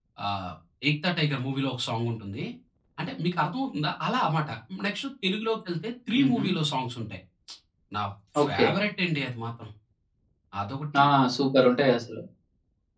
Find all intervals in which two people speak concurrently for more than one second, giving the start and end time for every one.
none

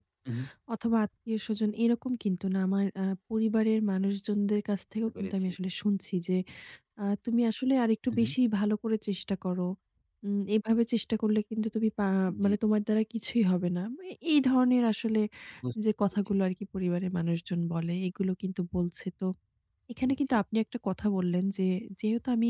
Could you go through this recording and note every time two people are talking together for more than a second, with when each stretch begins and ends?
none

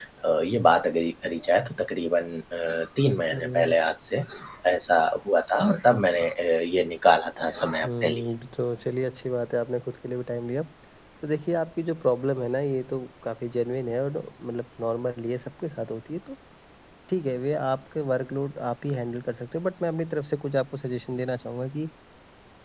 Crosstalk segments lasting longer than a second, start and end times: none

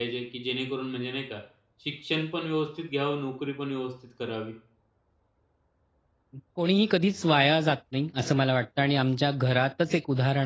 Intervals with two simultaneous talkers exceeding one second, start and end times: none

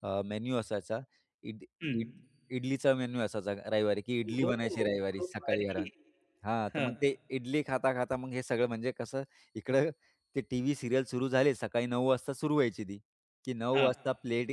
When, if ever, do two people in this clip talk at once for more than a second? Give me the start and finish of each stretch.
4.3-5.9

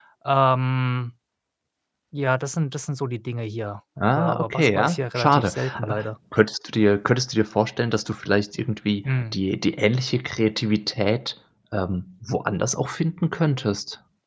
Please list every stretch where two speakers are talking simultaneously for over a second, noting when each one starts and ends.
4.1-6.0

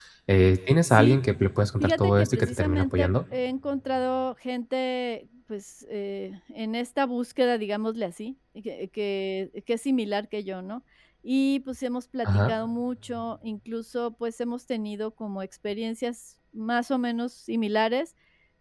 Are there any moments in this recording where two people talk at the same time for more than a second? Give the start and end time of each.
1.8-3.1

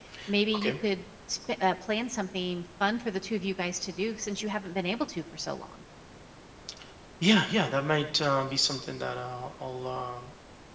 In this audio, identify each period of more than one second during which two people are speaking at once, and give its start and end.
none

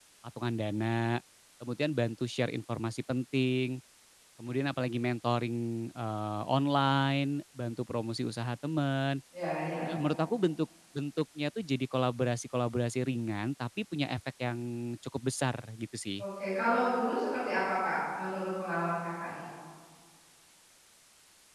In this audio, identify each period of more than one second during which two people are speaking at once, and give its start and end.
none

